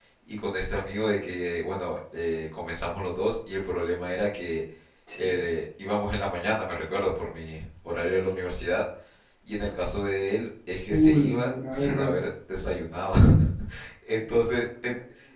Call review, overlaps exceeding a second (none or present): present